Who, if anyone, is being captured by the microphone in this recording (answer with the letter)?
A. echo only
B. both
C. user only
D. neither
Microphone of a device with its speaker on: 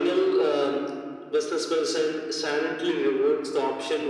A